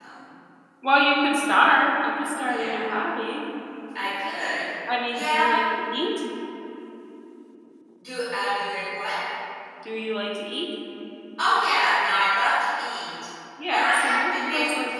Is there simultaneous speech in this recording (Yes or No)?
Yes